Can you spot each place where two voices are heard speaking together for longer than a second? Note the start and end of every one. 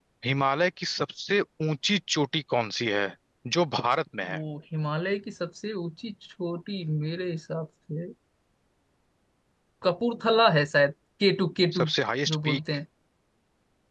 none

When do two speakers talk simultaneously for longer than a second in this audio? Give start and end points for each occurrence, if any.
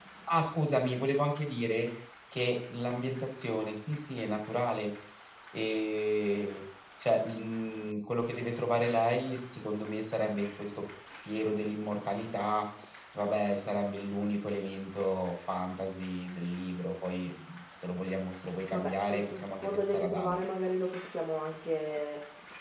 18.7-20.5

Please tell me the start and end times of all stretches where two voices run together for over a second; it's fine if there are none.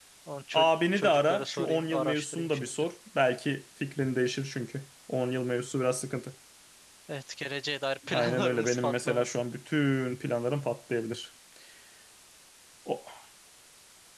0.5-2.7, 8.1-9.4

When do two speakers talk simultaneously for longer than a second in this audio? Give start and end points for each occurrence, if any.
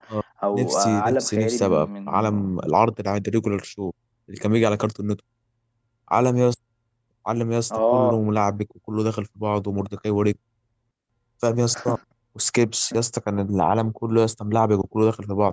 0.5-2.3

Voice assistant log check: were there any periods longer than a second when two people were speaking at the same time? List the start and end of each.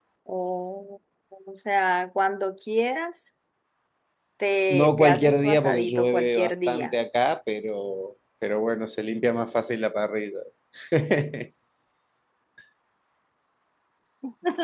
4.7-6.9

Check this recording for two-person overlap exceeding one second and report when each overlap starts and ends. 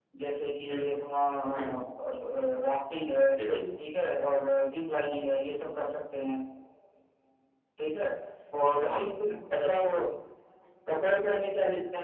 none

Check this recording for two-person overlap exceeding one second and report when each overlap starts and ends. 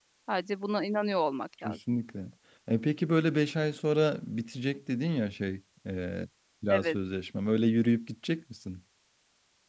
none

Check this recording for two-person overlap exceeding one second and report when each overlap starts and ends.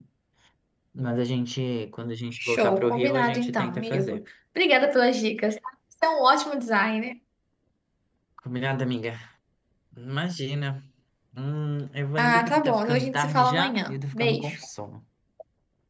2.3-4.2, 12.2-14.6

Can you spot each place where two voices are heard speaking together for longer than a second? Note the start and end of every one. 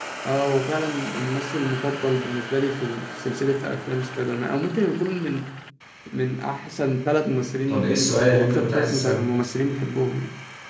7.7-9.2

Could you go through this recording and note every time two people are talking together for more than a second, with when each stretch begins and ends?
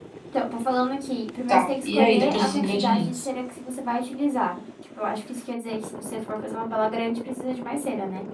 1.5-3.3

